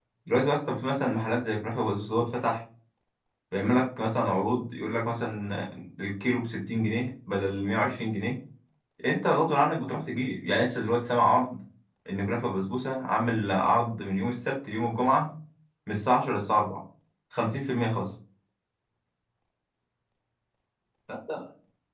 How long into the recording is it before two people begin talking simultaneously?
none

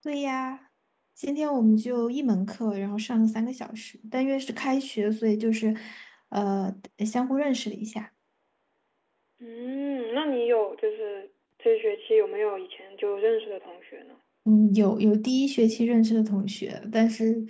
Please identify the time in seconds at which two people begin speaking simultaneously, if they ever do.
none

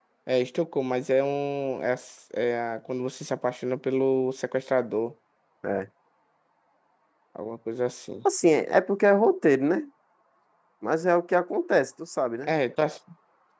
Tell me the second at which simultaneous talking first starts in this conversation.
none

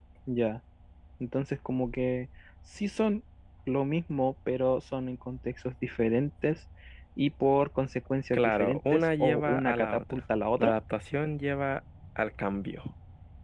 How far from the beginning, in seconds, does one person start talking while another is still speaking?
8.3 s

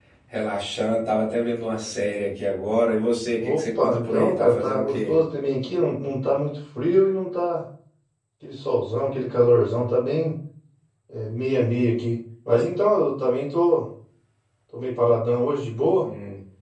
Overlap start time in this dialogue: 3.4 s

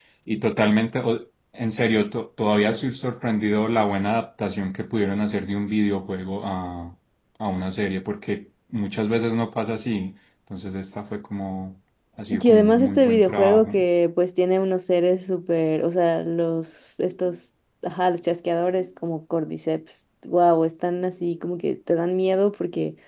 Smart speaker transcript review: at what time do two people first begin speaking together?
12.3 s

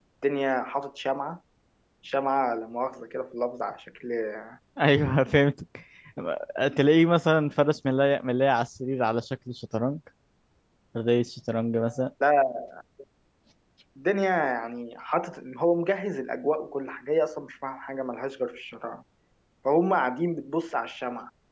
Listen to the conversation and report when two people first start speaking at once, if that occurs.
none

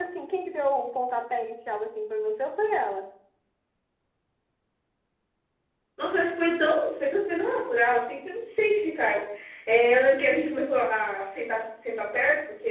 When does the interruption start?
none

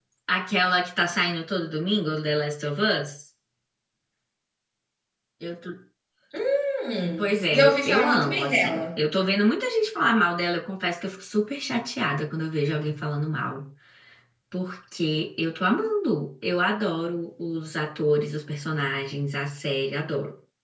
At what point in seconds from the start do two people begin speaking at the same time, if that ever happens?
7.2 s

